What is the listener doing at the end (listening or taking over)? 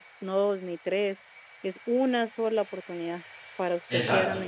taking over